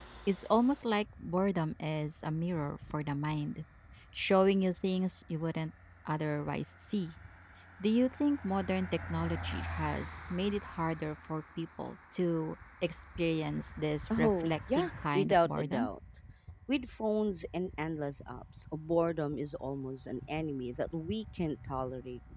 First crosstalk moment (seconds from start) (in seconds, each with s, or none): 14.1 s